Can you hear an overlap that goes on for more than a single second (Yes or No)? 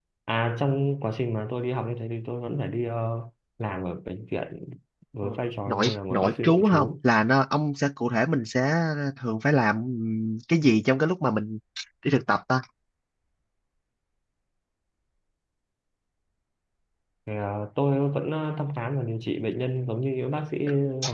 Yes